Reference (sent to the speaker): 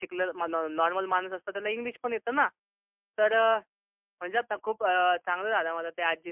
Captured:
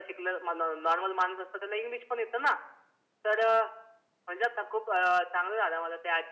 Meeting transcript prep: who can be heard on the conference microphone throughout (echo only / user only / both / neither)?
echo only